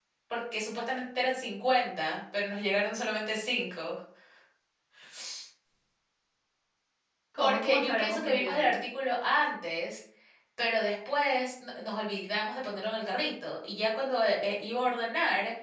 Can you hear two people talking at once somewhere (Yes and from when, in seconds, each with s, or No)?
Yes, from 7.4 s